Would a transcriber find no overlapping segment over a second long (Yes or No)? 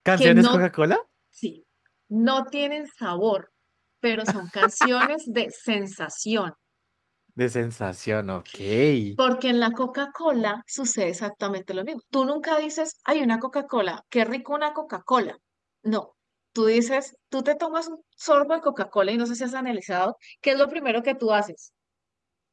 Yes